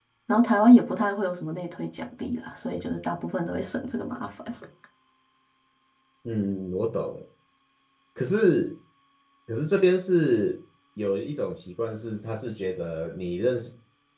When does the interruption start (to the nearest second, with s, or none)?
none